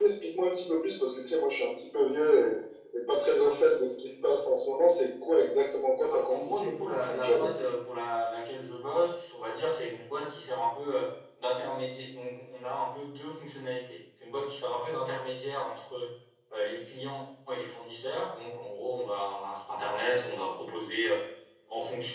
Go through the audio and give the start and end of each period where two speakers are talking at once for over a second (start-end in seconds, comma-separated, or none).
6.3-7.5